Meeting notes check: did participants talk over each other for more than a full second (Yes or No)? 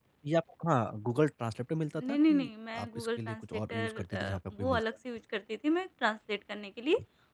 Yes